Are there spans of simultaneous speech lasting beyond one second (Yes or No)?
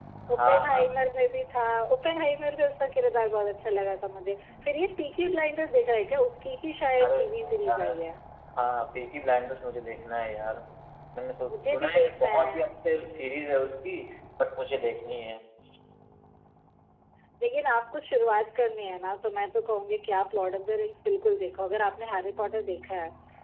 Yes